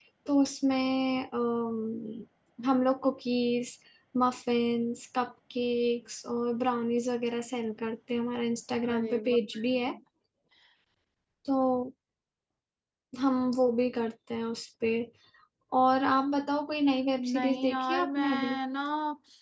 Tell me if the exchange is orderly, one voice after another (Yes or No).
No